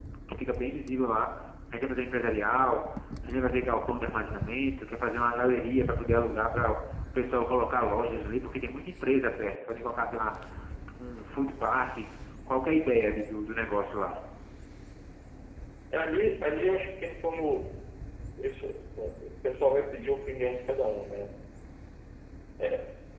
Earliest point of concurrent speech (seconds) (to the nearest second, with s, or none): none